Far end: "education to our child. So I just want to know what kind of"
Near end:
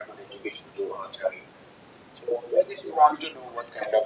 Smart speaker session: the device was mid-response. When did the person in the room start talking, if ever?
none

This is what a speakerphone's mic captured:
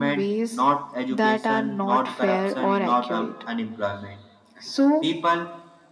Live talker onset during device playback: none

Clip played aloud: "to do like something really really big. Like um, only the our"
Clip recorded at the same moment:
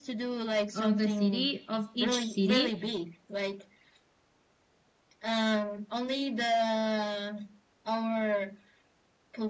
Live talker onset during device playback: 0.7 s

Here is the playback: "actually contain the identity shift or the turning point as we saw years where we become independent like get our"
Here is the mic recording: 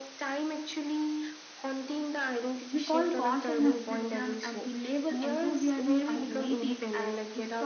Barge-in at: 2.7 s

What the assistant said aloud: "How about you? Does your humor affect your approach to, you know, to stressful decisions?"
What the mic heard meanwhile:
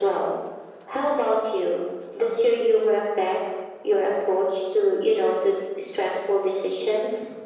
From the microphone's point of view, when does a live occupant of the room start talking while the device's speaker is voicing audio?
none

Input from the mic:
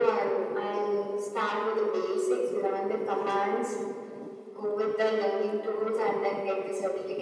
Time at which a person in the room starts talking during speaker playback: none

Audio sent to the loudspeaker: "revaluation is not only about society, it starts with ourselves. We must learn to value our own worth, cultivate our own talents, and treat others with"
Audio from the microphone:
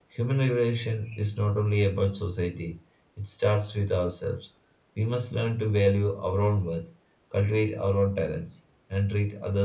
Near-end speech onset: none

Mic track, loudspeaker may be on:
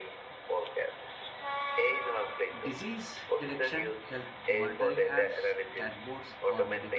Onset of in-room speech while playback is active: 2.6 s

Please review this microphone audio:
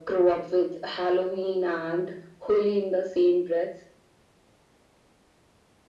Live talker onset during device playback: none

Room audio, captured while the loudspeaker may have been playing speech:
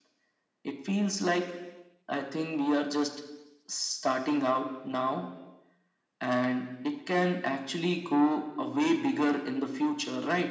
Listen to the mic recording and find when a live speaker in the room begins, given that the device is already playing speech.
none

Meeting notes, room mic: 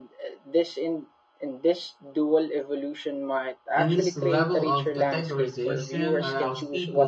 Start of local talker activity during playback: 3.8 s

